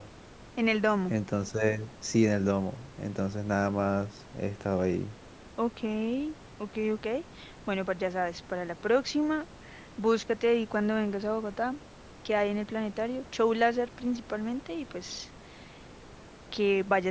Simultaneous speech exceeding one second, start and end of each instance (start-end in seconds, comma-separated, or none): none